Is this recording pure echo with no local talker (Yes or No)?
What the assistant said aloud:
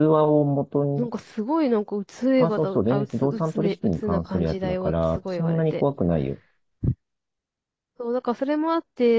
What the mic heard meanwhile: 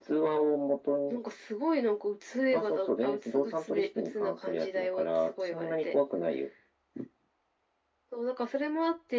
Yes